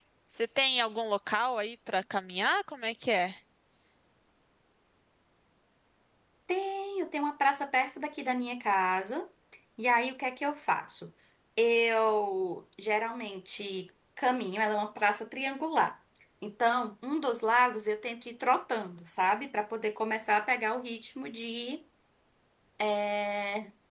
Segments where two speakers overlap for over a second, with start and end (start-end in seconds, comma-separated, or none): none